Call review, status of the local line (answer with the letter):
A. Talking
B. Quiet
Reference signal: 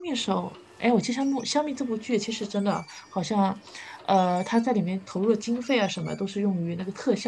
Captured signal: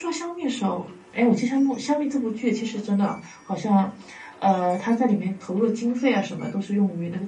B